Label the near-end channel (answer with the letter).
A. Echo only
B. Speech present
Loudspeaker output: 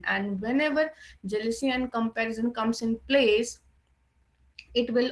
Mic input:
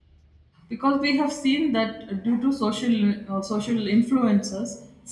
B